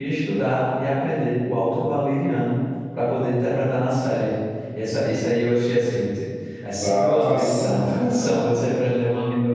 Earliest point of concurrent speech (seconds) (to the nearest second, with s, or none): 7 s